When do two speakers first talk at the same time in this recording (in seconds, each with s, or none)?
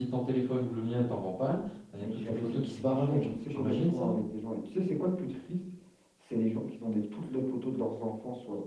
2.0 s